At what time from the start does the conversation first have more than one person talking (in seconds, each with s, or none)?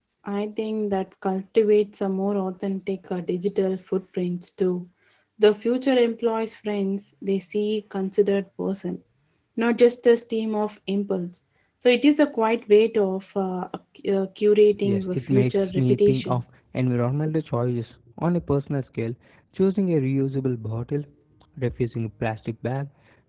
14.8 s